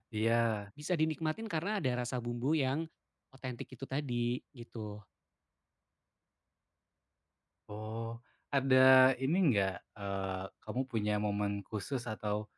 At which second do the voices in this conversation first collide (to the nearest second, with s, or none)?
none